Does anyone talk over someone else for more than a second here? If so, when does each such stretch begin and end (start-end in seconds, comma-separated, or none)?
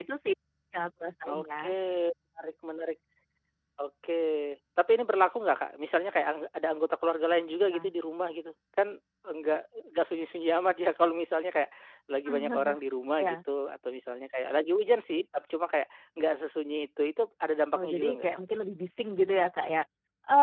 none